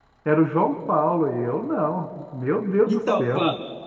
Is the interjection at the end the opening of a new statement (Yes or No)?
Yes